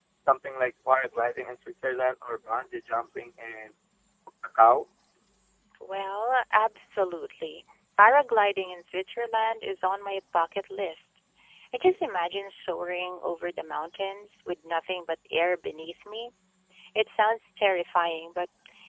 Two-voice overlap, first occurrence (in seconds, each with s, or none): none